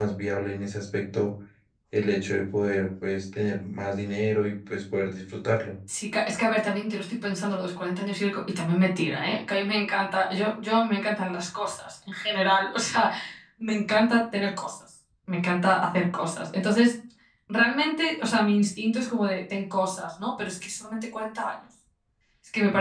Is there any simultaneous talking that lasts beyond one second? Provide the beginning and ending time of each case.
none

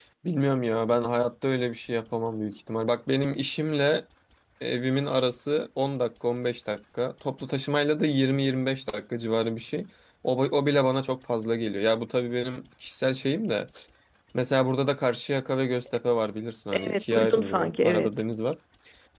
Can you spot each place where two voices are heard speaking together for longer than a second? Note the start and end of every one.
16.7-18.2

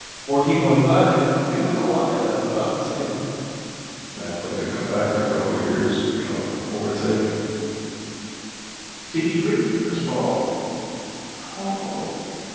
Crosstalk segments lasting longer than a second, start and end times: none

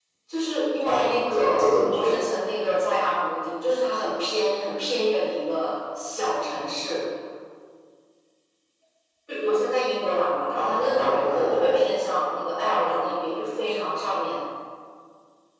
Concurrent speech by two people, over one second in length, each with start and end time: 0.8-2.2, 10.6-11.8

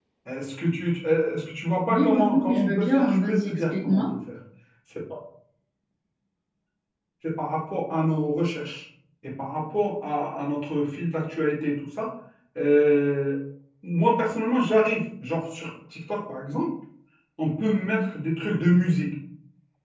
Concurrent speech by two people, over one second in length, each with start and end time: 1.9-4.0

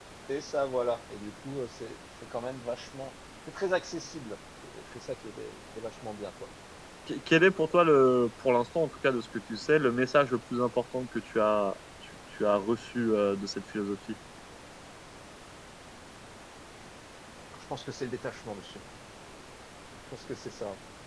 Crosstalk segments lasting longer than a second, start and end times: none

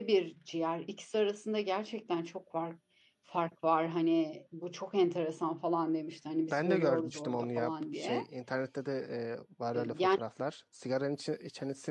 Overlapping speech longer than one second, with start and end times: 6.5-8.2

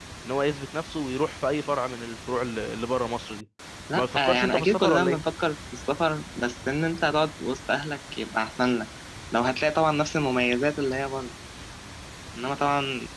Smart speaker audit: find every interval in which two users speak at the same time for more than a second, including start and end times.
4.0-5.2

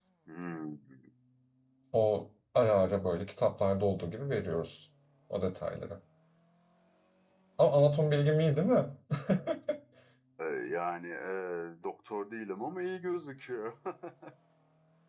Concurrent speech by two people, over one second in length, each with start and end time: none

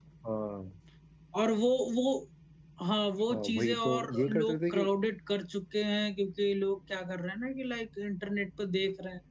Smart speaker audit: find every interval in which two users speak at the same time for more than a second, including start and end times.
3.3-4.9

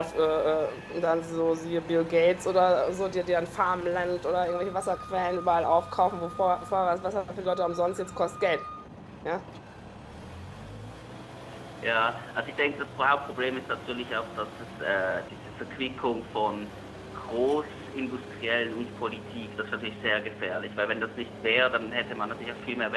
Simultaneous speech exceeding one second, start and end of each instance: none

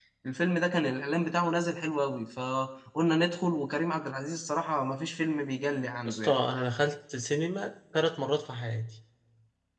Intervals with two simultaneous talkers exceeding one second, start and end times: none

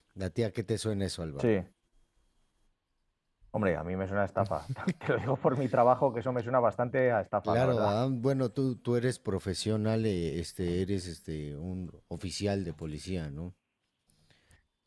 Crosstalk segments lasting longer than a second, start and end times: none

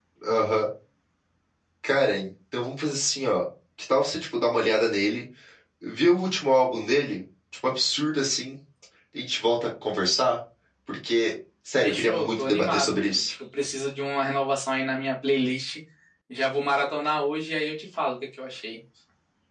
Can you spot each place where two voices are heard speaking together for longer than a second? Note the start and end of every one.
11.8-13.3

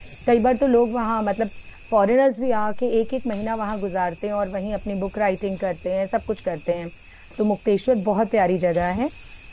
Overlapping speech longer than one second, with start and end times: none

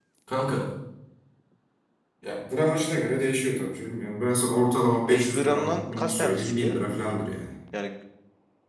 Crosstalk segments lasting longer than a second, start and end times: 5.1-6.8

